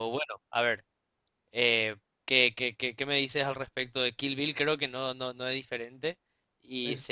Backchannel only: Yes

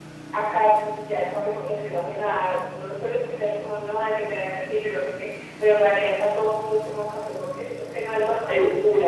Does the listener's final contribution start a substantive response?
Yes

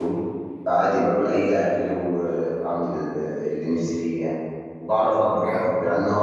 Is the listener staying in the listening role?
Yes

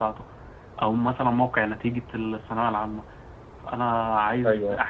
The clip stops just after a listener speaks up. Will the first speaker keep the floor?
Yes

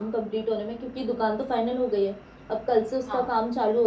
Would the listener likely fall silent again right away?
Yes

